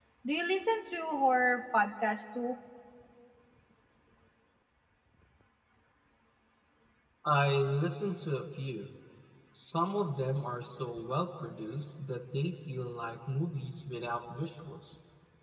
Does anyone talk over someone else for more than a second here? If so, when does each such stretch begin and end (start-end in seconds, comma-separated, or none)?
none